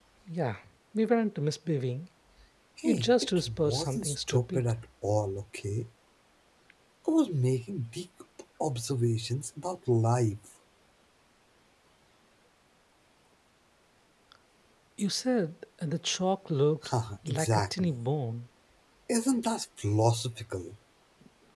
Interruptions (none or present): present